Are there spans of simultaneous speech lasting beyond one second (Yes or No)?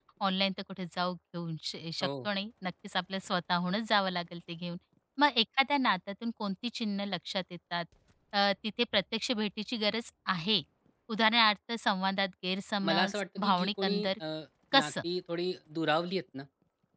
Yes